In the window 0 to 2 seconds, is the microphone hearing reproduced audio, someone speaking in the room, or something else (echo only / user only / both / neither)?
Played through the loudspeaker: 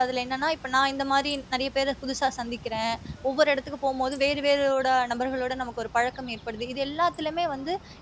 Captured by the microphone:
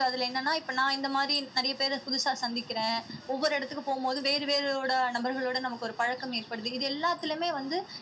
echo only